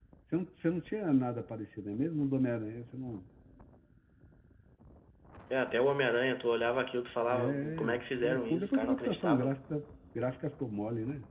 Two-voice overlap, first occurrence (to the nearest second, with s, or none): 7 s